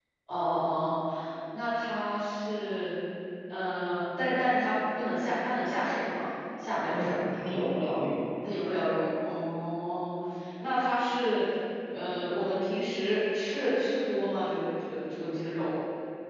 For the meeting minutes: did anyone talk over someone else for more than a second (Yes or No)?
No